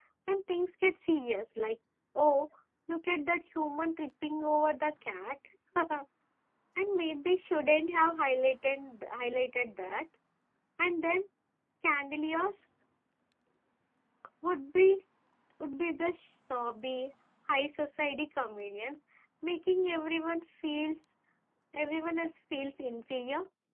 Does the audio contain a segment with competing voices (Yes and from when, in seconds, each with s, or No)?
No